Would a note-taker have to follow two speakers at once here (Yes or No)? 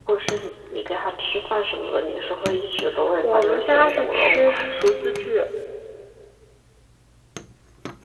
Yes